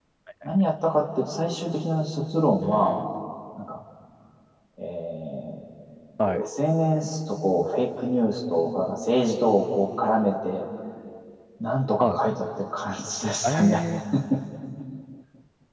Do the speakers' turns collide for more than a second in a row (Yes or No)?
No